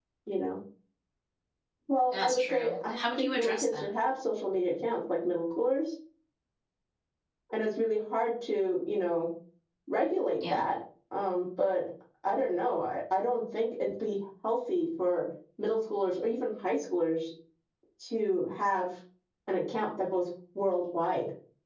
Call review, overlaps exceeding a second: present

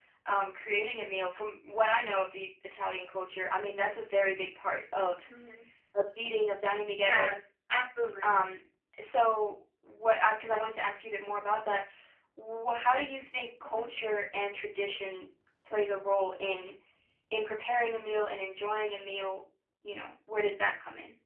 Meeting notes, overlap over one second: none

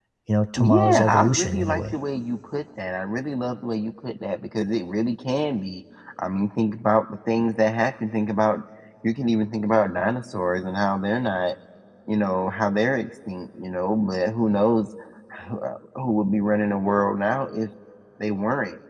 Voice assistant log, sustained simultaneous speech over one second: present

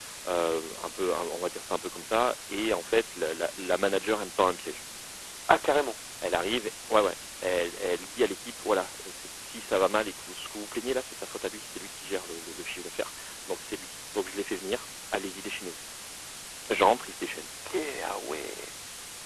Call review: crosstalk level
none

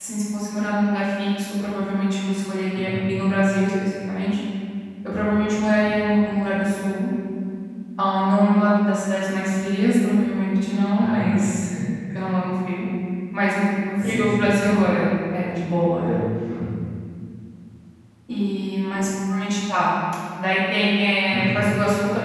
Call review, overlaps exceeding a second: none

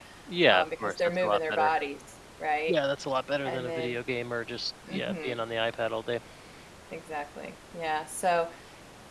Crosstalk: present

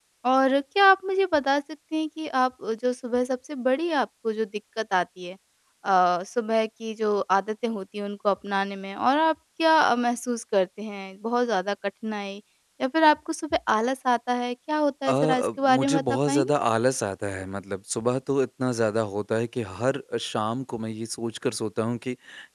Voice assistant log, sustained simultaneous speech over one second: present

